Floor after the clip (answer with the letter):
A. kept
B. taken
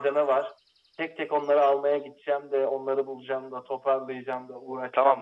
B